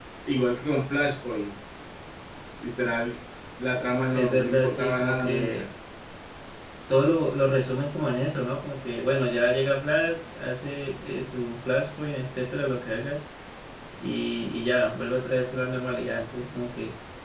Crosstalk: present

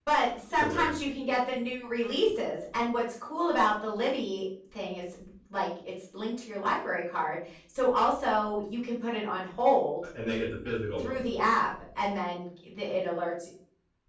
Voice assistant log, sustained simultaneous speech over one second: none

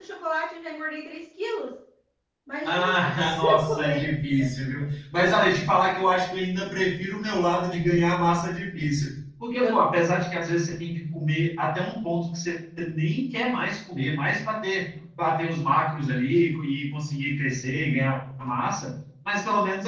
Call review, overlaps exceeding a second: present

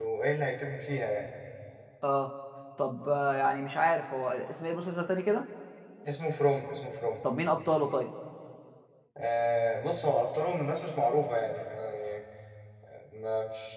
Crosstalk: none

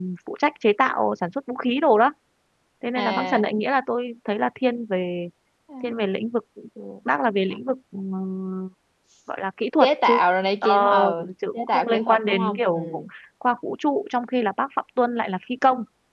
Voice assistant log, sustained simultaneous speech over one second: present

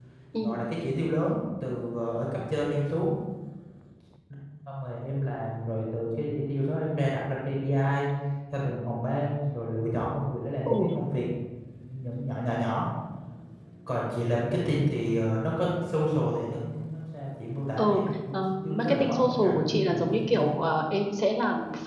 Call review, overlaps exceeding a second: present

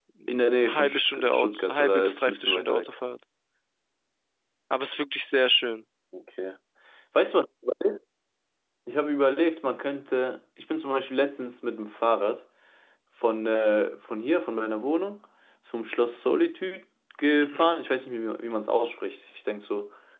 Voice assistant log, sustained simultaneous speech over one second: present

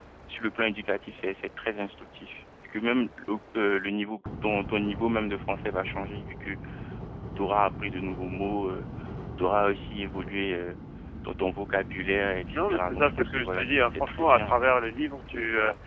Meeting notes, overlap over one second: present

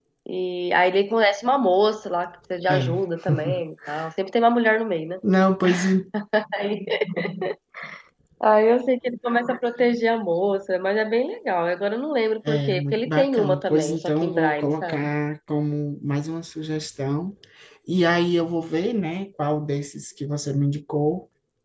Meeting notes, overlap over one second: present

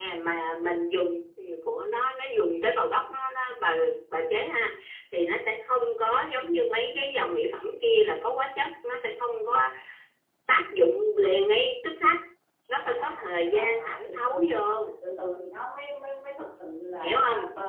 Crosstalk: present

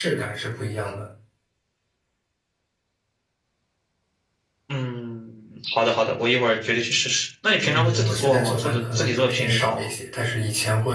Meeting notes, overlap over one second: present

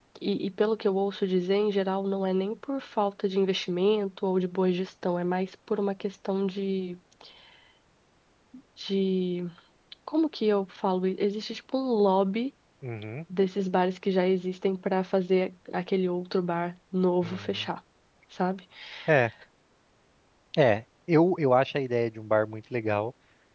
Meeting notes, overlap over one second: none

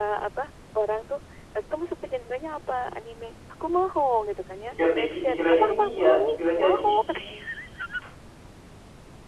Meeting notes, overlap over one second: present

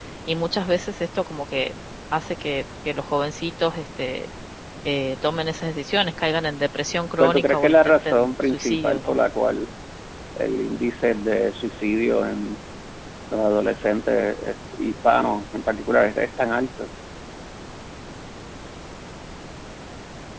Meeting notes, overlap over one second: present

